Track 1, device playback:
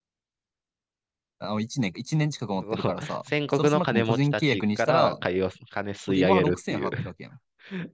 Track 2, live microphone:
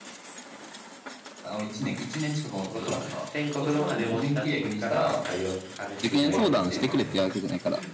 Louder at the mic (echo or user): user